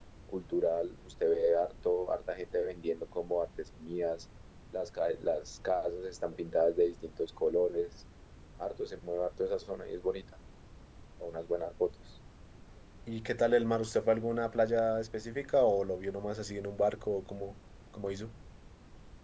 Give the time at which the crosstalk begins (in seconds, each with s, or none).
none